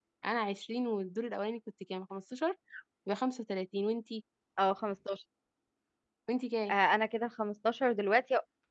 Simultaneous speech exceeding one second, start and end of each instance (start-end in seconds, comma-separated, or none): none